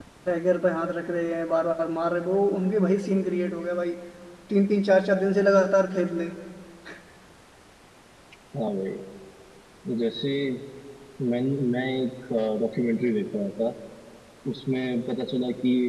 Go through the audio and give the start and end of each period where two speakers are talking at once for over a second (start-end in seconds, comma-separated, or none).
none